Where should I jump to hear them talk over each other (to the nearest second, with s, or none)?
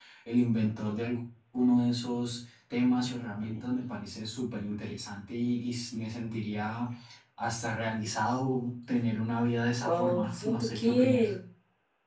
10 s